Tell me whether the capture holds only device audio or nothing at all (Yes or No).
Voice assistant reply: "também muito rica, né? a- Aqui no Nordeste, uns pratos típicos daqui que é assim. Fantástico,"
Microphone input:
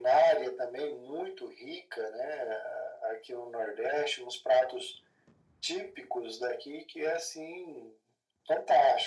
Yes